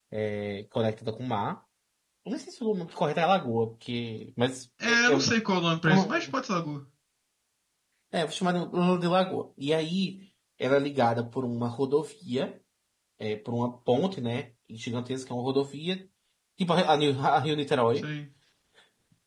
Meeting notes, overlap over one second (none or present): none